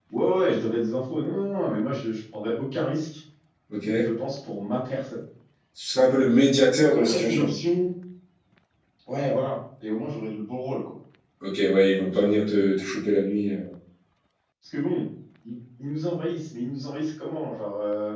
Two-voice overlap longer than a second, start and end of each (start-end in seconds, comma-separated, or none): none